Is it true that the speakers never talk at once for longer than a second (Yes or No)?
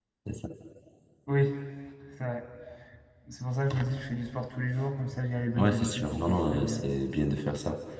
No